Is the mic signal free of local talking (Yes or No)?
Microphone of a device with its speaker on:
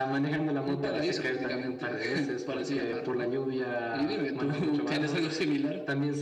Yes